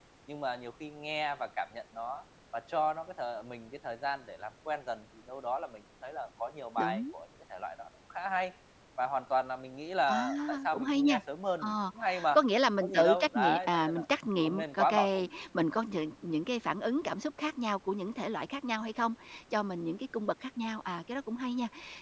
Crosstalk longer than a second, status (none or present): present